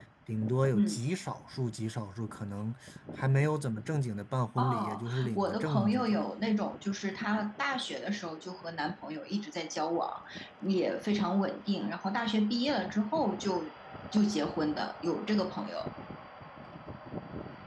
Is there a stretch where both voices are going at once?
Yes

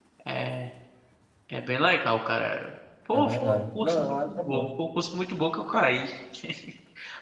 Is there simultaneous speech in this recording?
Yes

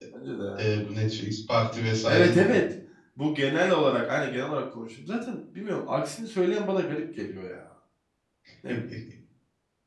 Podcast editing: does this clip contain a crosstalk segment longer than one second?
No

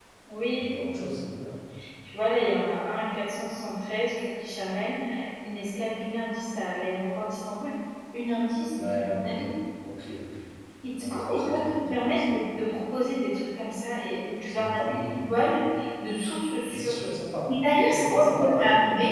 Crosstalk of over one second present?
Yes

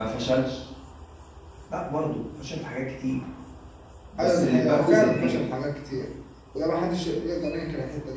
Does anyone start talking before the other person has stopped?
Yes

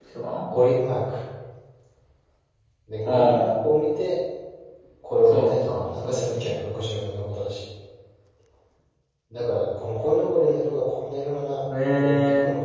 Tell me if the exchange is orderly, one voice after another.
No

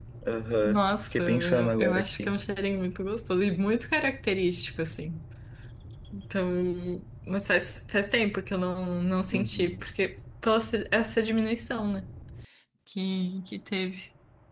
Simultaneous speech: Yes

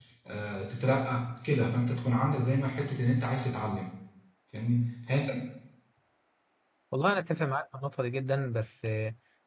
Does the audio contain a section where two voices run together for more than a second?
No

